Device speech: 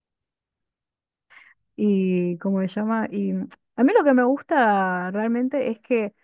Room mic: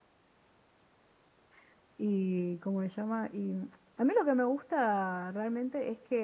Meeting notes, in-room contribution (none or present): none